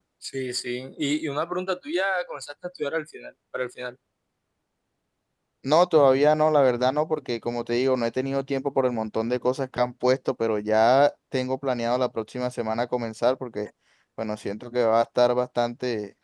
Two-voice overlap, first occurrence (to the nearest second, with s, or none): none